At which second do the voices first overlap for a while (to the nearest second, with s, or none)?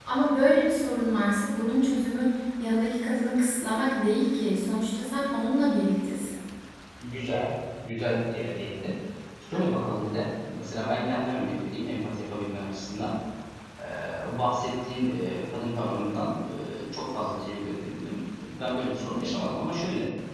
none